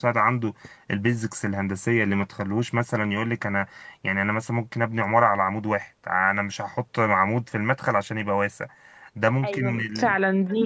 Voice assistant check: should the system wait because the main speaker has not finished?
No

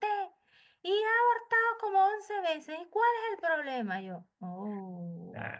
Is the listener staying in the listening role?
No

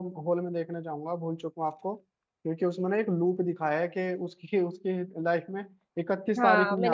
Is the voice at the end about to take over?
Yes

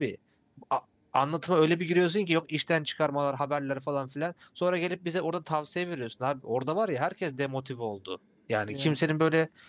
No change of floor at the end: Yes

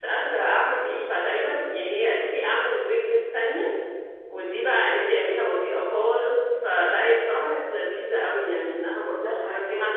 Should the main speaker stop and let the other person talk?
No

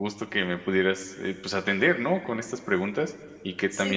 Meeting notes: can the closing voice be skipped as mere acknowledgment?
Yes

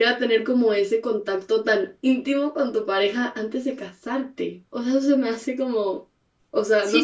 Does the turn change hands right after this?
Yes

